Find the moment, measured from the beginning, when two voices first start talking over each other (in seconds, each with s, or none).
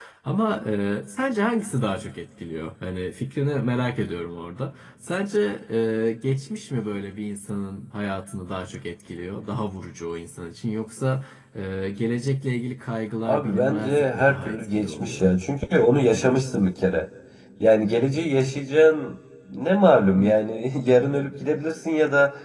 13.3 s